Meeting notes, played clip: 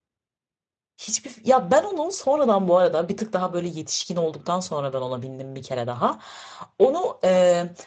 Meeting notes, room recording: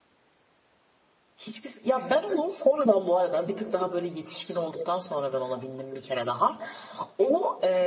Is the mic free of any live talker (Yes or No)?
Yes